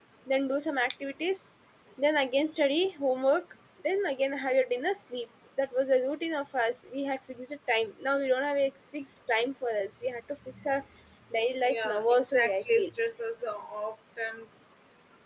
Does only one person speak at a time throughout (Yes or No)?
No